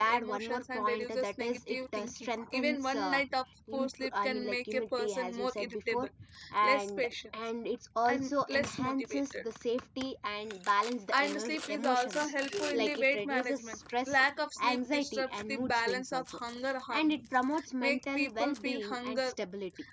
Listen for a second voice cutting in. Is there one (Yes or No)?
Yes